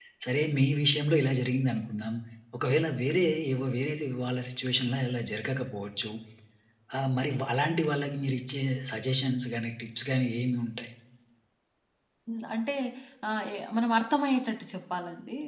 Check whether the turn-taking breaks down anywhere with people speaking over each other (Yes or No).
No